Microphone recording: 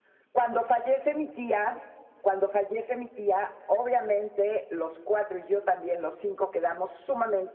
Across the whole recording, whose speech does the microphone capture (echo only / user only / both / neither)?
echo only